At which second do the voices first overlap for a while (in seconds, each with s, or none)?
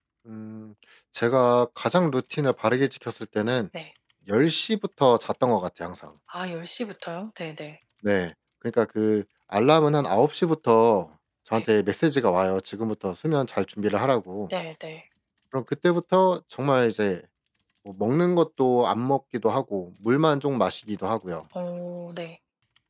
none